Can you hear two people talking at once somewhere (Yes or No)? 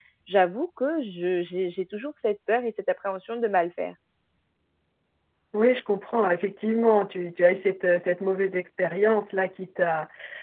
No